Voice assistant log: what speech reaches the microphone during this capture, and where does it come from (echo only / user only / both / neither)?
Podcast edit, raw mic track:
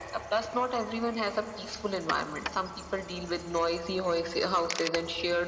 echo only